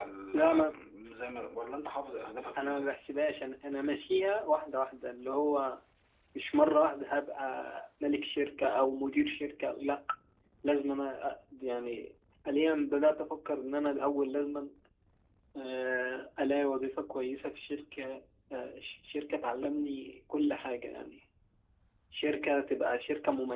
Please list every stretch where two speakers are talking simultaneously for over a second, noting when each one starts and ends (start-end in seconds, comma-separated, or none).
none